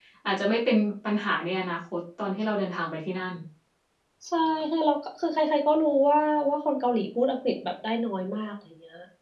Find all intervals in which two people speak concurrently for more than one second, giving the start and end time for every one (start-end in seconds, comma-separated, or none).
none